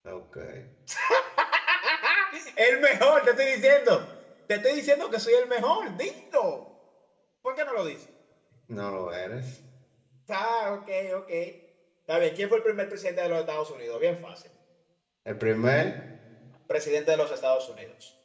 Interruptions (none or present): none